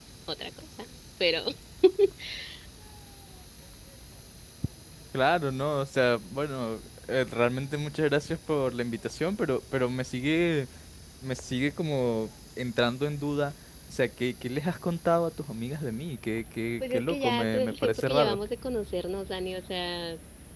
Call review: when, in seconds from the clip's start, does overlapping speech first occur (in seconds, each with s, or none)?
16.8 s